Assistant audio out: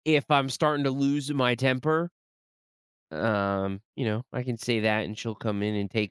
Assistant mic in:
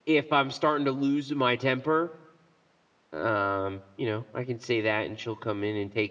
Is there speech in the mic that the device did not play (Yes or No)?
No